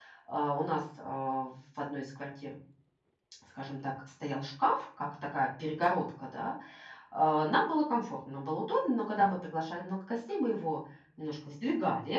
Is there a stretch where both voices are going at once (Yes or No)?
No